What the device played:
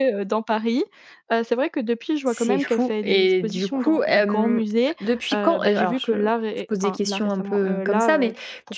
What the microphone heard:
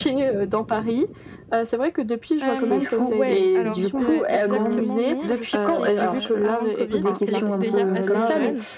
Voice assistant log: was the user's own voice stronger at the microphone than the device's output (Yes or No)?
No